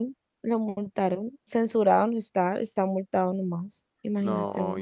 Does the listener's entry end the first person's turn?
Yes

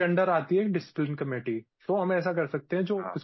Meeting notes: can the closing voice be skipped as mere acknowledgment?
Yes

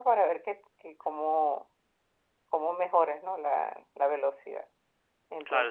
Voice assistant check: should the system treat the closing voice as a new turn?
Yes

